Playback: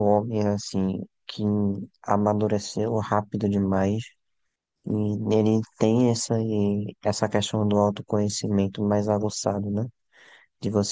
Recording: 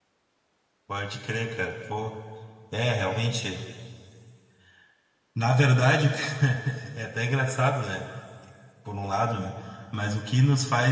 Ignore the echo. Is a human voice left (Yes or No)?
Yes